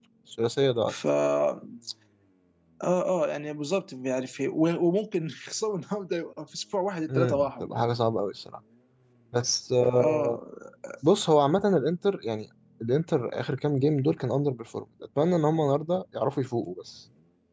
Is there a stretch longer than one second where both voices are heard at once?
No

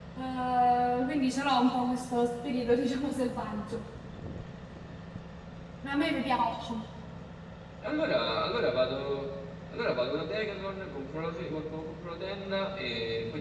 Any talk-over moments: No

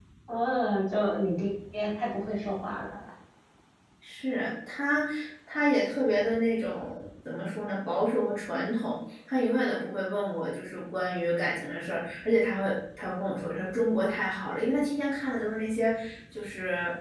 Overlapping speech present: No

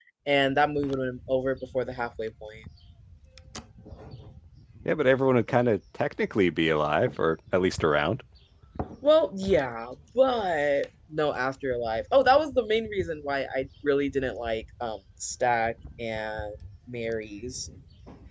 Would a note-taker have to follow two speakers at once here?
No

